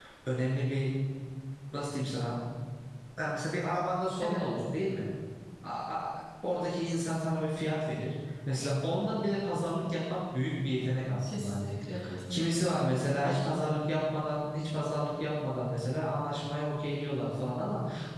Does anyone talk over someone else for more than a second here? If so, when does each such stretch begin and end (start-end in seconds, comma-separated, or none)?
none